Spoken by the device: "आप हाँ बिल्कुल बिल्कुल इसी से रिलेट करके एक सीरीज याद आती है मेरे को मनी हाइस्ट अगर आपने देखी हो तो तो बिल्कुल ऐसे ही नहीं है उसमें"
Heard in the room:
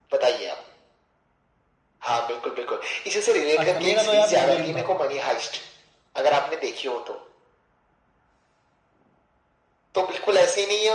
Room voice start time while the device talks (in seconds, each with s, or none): 3.6 s